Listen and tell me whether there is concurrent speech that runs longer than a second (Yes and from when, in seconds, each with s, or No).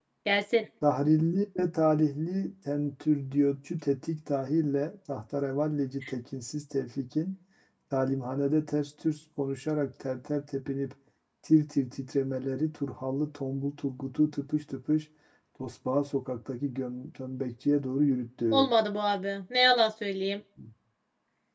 No